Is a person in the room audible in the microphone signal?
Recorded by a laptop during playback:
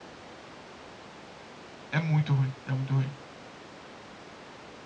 Yes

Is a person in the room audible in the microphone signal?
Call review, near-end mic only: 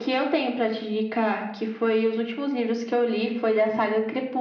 No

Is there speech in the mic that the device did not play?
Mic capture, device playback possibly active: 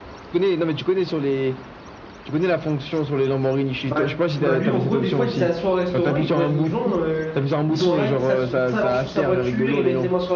Yes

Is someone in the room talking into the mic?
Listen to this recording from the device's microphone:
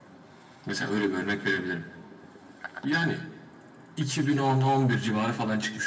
No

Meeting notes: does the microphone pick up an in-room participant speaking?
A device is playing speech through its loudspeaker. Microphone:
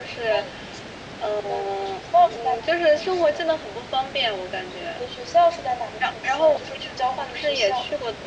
No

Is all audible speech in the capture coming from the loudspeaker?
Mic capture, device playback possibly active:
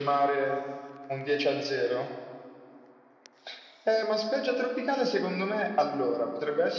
Yes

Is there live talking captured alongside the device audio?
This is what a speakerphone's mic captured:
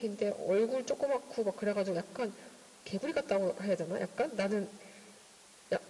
No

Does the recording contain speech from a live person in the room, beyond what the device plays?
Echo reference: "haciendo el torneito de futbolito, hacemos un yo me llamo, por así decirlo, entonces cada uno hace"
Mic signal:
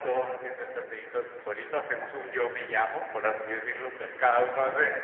No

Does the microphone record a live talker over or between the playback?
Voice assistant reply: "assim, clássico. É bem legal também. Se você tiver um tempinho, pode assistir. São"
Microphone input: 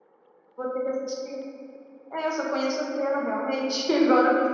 Yes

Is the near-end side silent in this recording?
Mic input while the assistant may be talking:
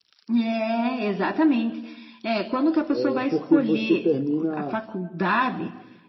No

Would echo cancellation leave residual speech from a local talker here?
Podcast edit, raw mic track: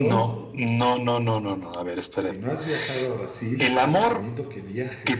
Yes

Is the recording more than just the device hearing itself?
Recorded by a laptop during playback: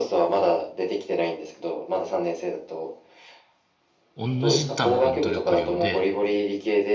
Yes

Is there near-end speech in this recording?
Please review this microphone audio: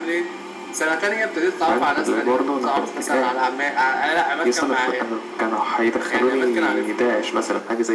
No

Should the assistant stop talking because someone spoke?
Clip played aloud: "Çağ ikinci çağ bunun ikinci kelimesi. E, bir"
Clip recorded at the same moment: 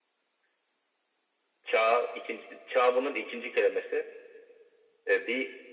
No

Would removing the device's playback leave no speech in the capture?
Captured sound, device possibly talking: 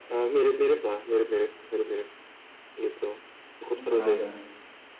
No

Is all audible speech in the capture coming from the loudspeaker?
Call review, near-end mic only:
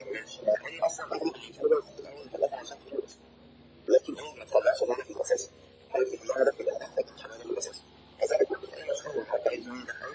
Yes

